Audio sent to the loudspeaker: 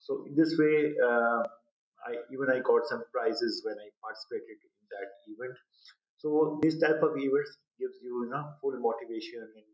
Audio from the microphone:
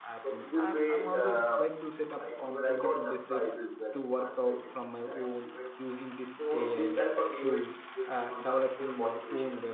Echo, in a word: present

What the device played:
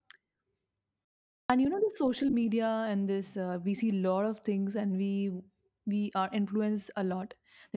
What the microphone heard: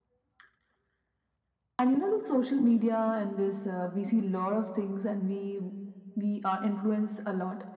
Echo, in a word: present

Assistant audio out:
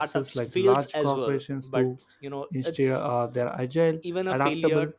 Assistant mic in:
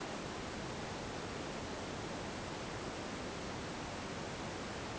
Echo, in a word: none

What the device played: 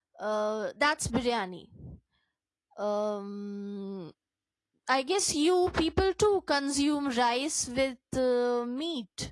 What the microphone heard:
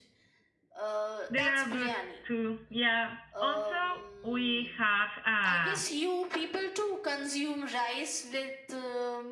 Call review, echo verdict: present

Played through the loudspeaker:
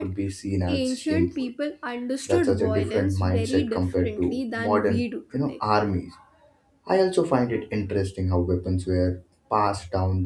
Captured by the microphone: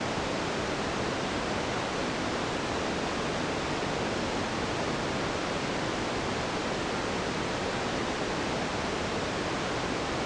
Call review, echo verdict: none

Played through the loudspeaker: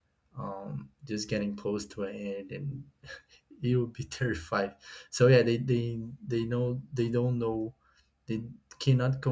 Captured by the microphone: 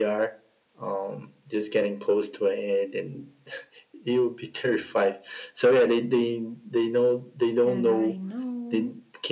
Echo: present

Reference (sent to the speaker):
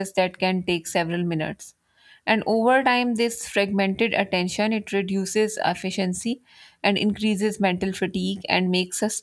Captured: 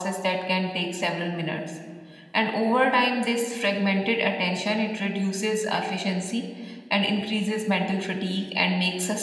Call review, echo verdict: present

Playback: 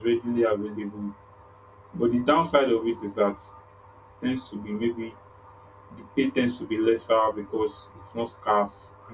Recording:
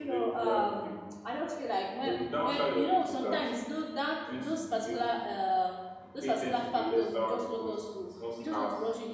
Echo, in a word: present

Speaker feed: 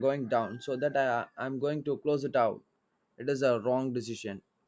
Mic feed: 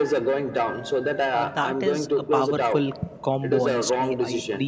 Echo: present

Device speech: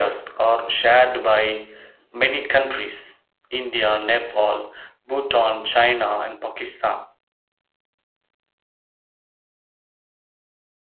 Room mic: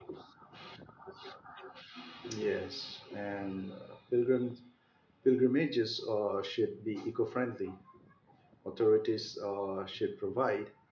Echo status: none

